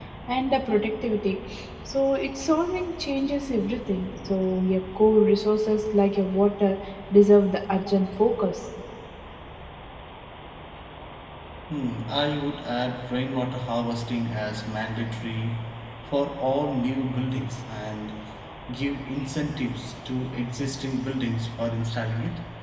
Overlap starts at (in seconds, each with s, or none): none